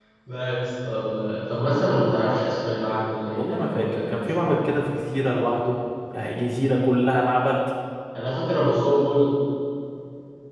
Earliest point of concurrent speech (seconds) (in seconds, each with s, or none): 3.3 s